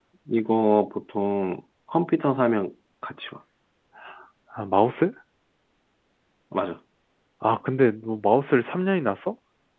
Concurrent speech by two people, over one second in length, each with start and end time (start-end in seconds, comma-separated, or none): none